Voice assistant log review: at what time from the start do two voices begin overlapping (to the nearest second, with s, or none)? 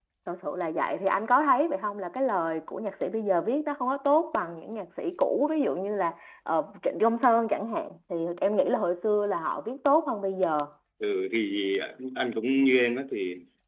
none